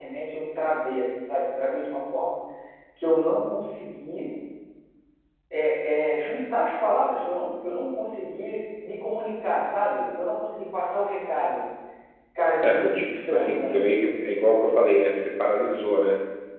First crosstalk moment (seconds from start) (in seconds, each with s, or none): 12.6 s